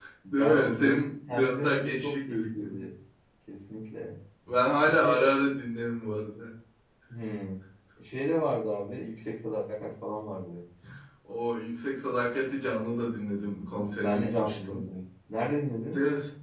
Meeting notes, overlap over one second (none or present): present